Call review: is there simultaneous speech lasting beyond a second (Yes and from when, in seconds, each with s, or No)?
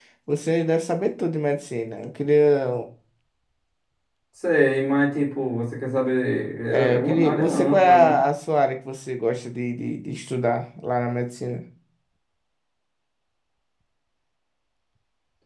Yes, from 6.7 s